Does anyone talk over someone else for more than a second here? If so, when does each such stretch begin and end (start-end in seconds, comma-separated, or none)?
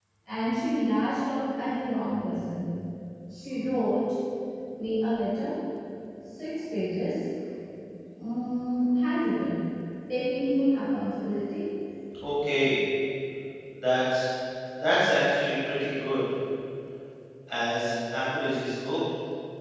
none